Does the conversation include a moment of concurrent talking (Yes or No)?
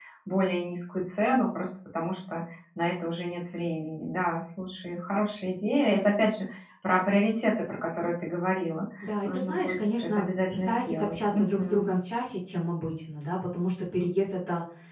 Yes